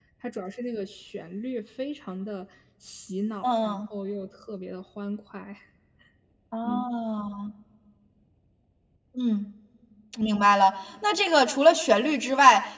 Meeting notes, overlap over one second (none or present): none